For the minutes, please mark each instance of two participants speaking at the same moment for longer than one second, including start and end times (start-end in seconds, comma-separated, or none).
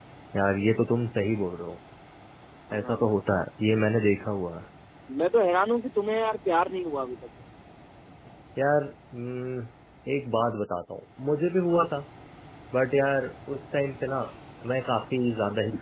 none